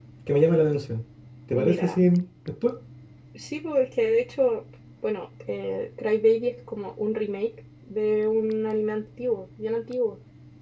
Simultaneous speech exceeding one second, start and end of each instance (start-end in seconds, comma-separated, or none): none